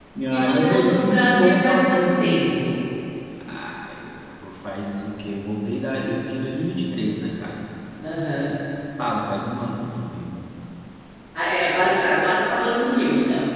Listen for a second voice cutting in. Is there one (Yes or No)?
Yes